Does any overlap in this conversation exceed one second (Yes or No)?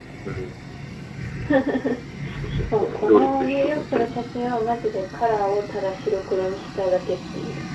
Yes